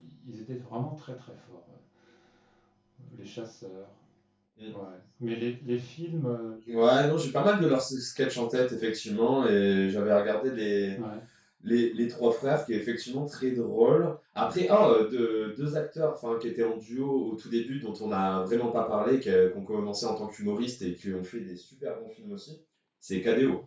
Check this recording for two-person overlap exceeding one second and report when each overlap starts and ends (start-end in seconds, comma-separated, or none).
none